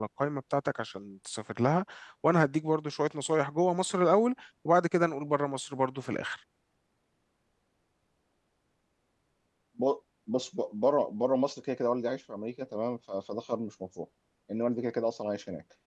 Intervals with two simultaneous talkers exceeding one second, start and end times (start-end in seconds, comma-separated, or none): none